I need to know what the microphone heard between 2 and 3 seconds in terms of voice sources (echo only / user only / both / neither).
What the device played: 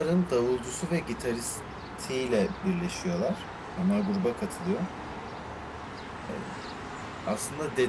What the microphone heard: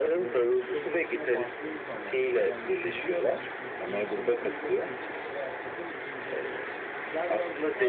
both